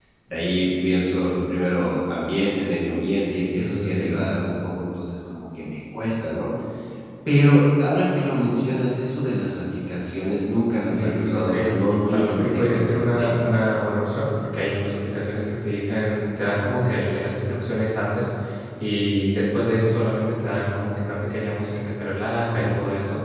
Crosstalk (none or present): present